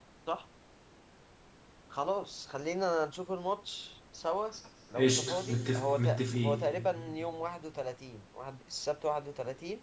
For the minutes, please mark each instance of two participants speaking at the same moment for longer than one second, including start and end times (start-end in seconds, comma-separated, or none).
5.0-6.6